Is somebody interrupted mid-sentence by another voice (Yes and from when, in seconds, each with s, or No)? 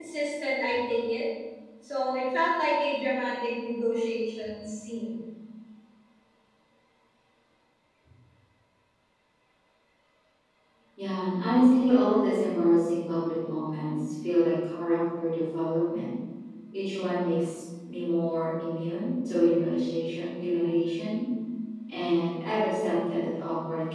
No